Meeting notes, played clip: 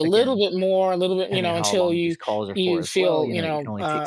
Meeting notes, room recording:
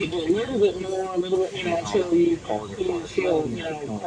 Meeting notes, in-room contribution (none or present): none